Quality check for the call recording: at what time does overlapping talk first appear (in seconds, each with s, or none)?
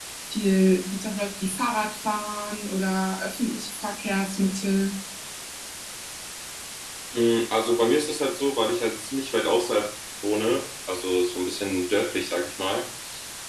none